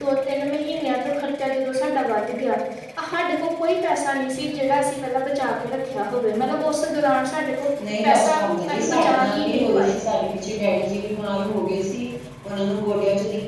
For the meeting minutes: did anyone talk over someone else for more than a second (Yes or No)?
Yes